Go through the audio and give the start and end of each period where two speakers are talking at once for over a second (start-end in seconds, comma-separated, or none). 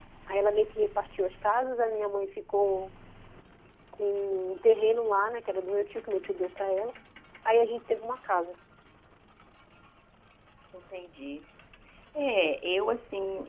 none